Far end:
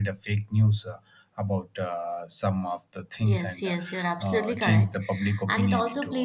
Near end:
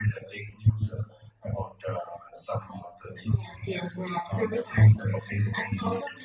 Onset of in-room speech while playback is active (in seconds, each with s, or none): none